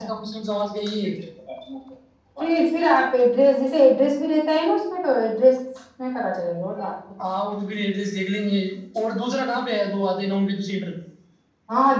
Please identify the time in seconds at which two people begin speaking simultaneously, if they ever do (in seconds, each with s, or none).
none